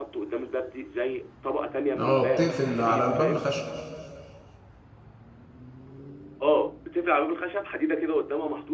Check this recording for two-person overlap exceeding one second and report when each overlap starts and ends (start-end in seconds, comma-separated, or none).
1.9-3.5